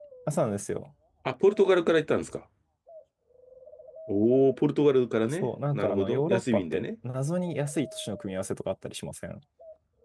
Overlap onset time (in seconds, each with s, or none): 5.3 s